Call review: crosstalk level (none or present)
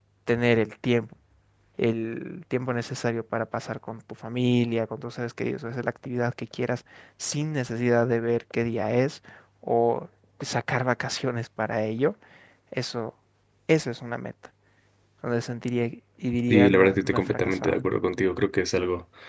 present